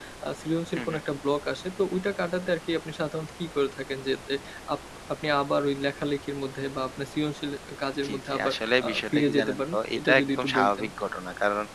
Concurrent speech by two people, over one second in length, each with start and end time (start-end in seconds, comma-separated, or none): 8.1-10.8